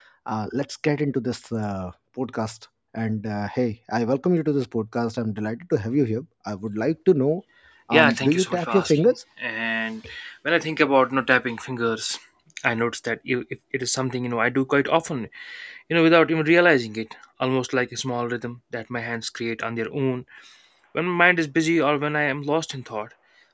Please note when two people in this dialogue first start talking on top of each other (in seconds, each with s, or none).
7.9 s